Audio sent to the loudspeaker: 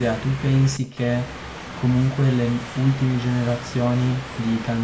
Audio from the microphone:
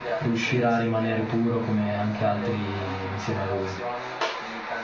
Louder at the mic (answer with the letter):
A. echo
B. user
B